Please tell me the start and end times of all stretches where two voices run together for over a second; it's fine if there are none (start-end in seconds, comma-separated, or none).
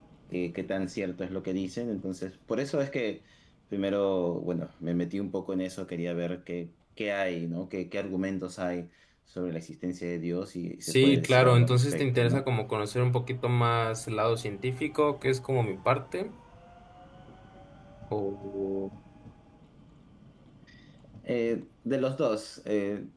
10.8-12.5